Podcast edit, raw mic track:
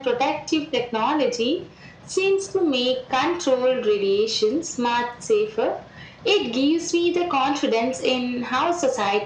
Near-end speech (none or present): none